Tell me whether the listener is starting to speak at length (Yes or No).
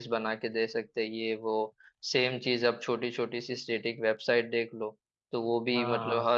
No